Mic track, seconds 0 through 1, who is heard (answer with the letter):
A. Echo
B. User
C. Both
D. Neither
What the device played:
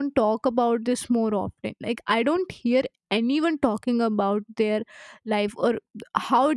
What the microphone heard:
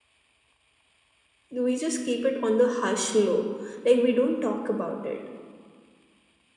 D